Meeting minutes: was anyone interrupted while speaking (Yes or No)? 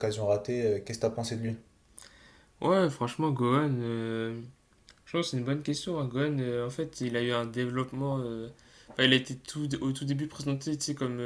No